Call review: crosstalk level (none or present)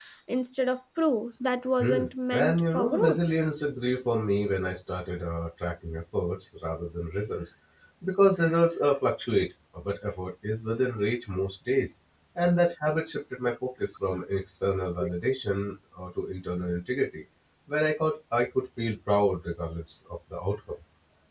present